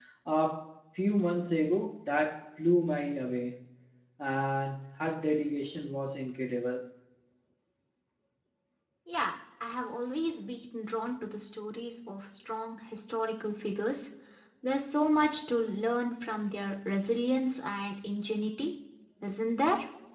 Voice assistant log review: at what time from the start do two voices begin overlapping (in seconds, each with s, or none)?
none